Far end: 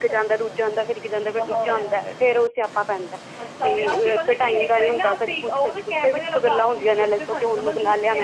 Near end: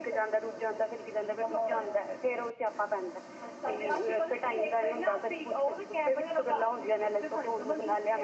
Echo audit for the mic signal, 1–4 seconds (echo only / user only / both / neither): echo only